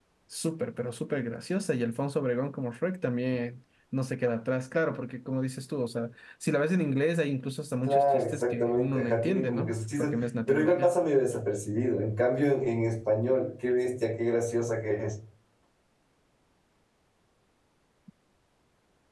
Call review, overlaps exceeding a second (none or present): present